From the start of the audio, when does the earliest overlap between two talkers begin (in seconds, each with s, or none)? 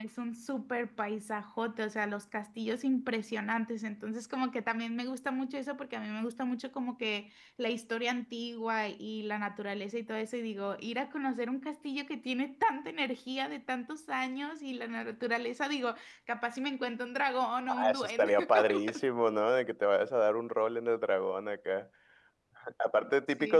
17.7 s